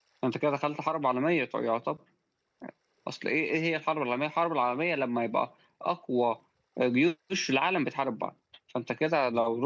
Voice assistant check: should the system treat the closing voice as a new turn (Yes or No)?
No